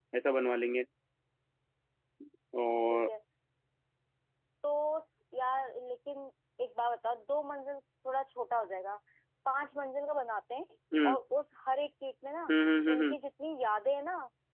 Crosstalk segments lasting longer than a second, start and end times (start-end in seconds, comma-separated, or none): none